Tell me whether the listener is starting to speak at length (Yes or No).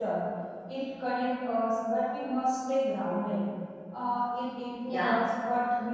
No